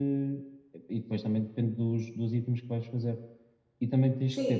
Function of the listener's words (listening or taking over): listening